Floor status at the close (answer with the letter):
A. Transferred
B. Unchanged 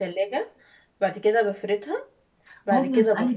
A